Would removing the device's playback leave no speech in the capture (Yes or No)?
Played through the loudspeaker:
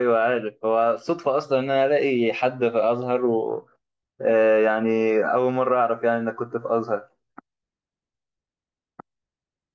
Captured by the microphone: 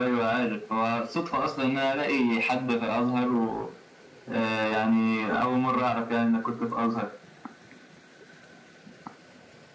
Yes